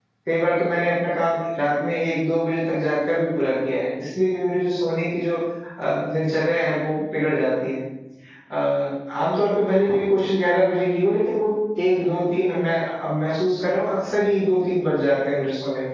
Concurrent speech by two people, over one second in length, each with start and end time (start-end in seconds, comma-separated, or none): none